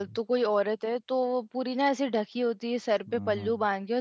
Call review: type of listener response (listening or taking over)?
listening